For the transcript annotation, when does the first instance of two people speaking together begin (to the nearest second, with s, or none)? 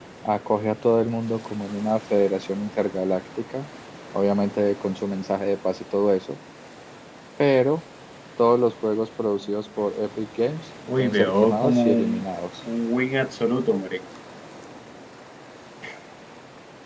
11 s